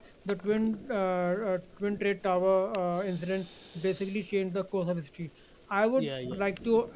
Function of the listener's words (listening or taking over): listening